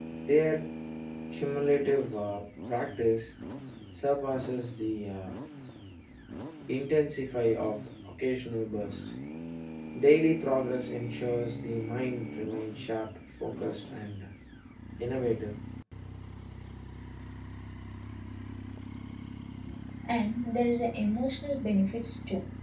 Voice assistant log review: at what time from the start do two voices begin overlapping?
none

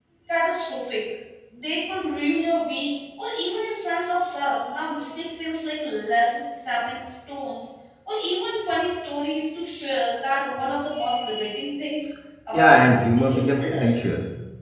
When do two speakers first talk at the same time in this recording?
13 s

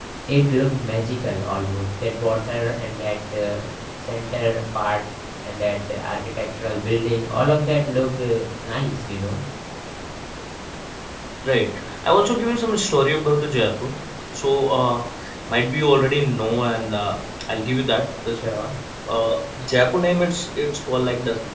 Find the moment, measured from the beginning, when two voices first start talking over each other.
none

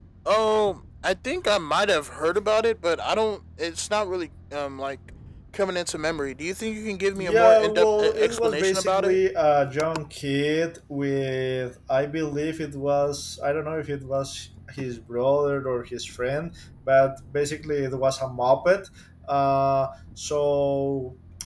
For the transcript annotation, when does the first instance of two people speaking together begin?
7 s

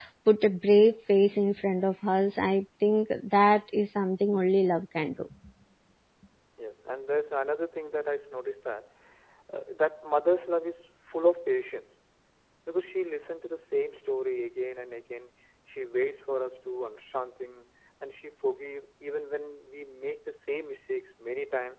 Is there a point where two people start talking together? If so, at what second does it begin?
none

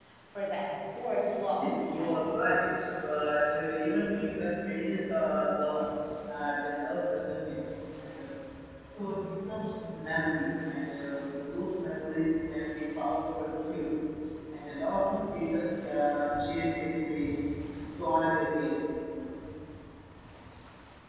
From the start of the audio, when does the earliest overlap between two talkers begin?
2 s

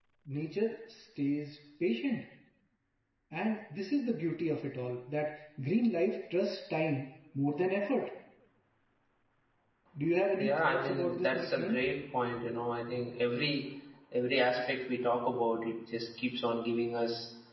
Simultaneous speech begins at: 10 s

